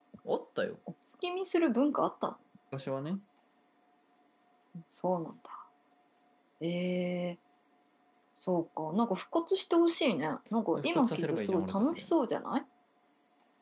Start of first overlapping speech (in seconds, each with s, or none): 10.7 s